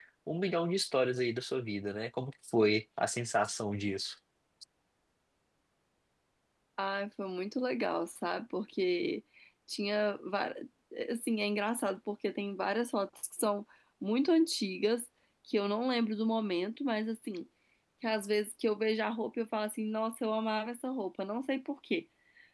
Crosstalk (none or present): none